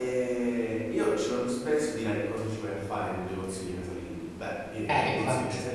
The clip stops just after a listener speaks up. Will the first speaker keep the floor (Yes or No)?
Yes